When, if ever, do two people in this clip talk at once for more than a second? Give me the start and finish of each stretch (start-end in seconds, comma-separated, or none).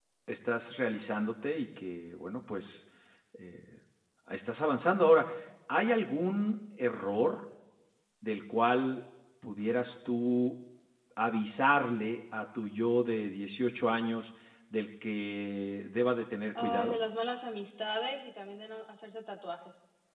none